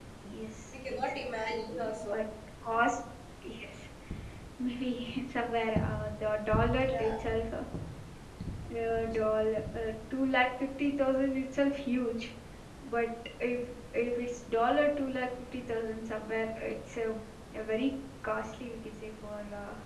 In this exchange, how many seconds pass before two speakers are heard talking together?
1 s

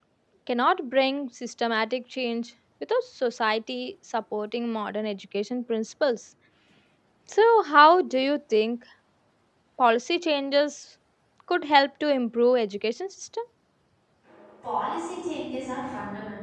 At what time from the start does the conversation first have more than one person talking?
none

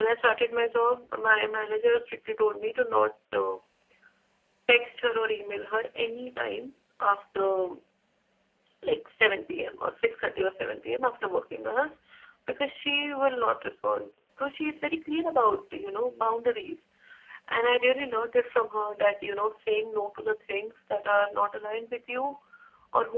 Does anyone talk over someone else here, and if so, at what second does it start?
none

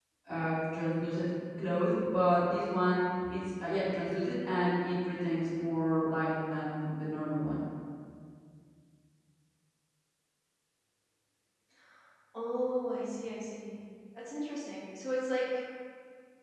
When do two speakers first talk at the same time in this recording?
none

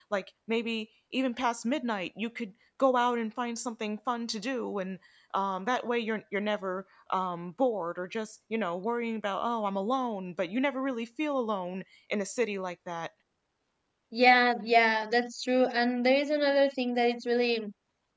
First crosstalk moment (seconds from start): none

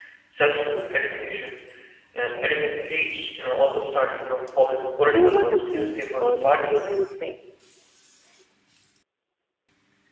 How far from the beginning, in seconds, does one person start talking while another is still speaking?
5 s

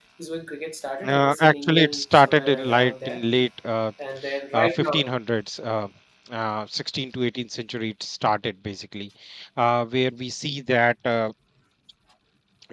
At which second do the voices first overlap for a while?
1 s

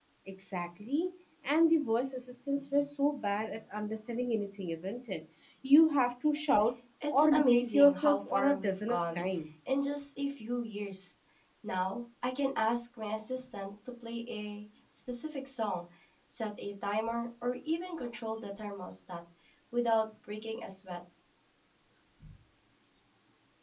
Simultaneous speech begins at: 7 s

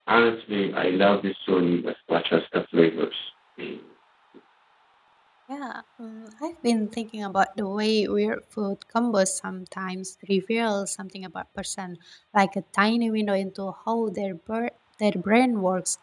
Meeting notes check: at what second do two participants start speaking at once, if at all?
none

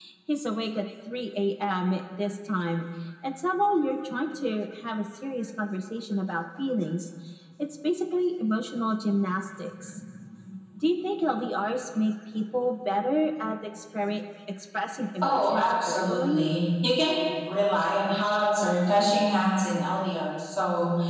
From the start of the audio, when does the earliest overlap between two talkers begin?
15 s

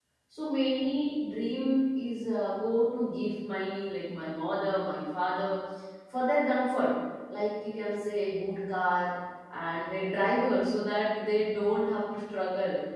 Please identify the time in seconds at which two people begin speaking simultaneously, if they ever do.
none

